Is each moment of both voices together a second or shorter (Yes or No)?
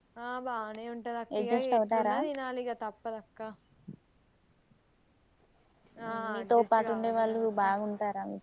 No